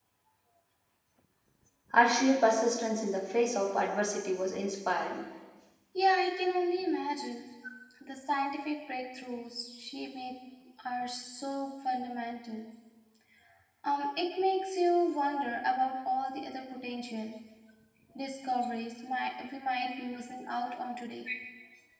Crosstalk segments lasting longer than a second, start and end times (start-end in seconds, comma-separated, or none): none